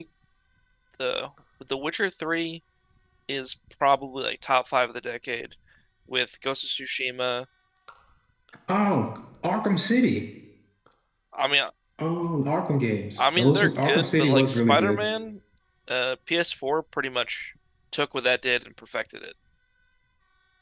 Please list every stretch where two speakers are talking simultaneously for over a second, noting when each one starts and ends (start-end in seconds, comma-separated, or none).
13.2-15.0